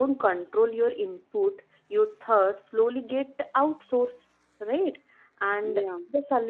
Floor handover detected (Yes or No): No